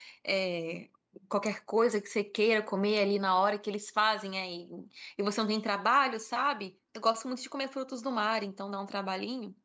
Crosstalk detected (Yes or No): No